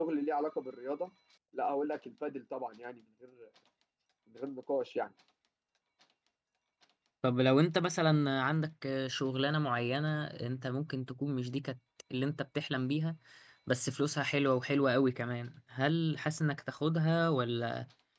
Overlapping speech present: No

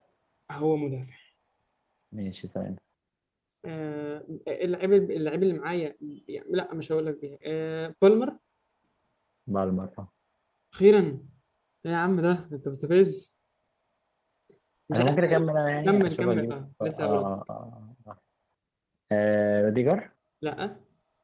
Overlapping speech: Yes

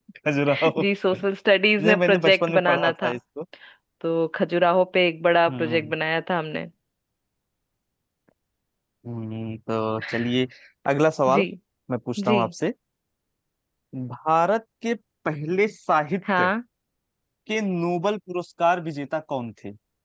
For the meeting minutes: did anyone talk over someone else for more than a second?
Yes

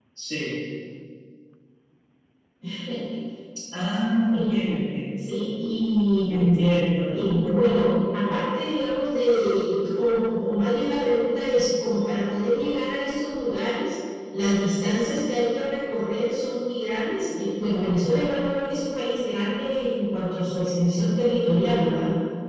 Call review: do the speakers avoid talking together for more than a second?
Yes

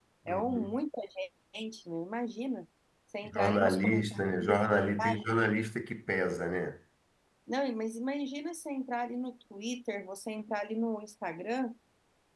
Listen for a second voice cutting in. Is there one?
Yes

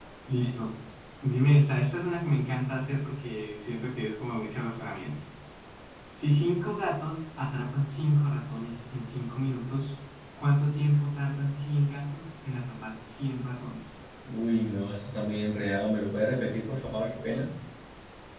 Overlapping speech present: No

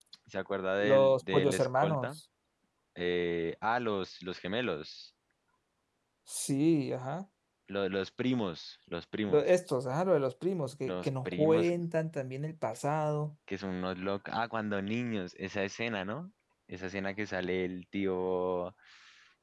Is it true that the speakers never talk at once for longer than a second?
No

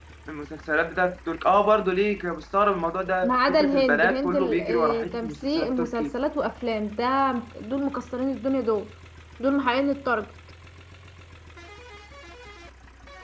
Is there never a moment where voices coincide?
No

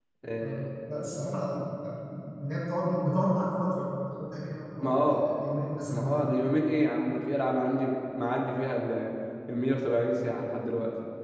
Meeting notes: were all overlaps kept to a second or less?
Yes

